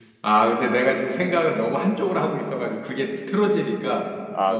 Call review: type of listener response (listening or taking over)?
taking over